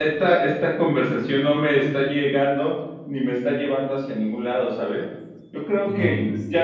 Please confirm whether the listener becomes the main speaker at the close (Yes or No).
No